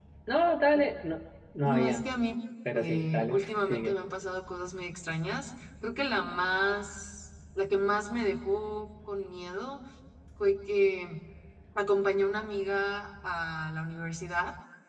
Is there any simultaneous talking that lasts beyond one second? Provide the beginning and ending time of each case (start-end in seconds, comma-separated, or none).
2.7-4.0